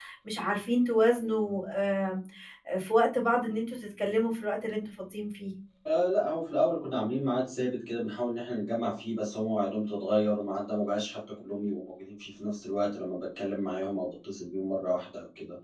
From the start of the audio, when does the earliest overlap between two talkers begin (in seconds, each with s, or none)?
none